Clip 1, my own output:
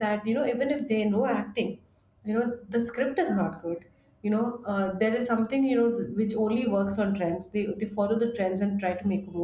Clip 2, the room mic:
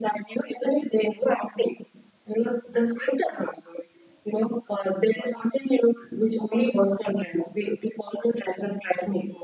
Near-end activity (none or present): none